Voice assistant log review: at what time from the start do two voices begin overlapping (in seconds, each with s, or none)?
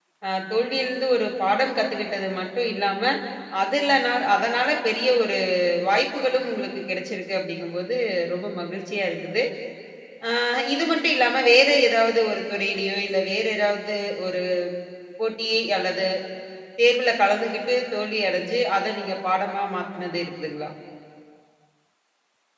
none